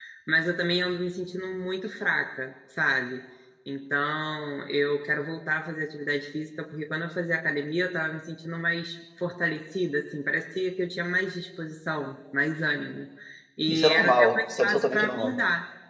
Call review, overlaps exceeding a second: present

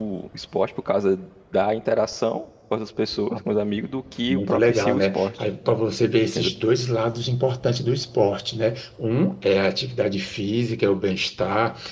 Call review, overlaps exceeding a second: present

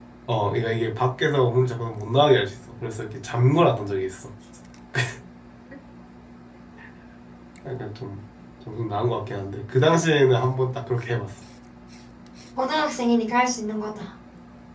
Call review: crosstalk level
none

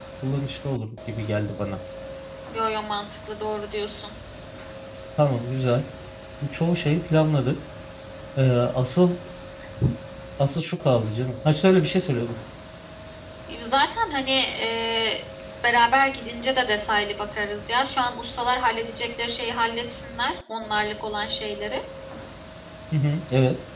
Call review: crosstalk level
none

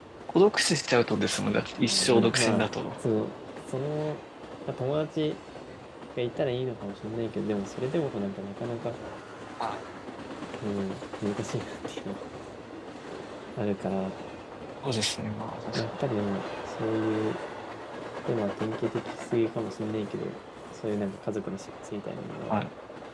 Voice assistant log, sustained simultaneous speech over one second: present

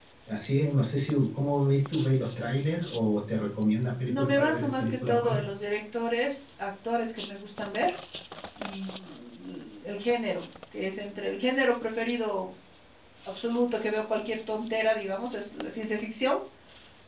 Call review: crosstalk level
present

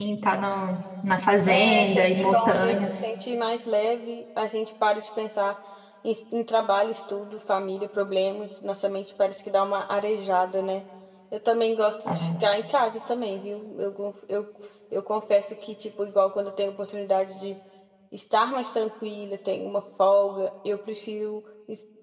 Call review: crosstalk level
present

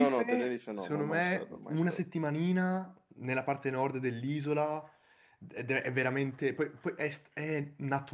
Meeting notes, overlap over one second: present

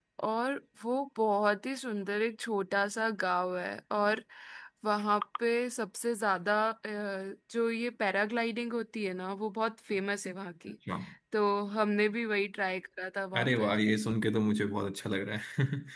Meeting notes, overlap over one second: none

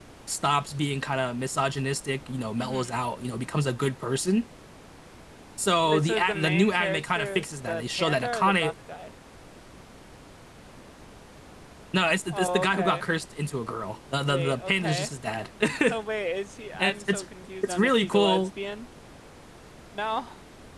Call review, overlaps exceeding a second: present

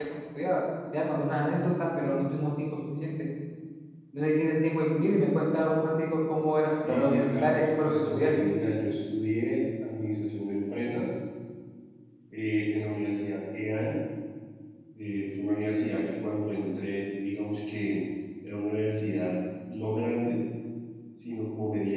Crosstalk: present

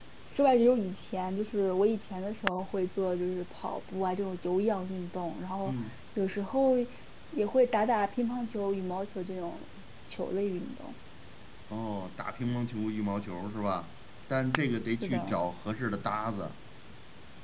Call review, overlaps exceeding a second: none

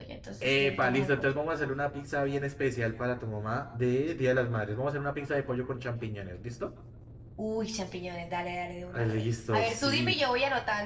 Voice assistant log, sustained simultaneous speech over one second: present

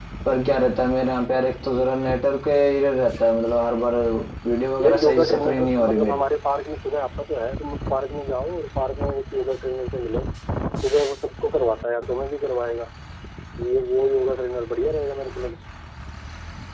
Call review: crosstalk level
present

